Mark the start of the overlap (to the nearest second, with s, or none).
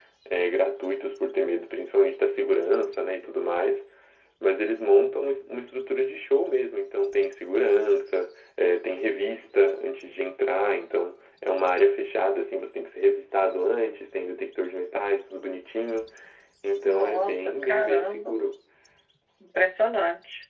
17 s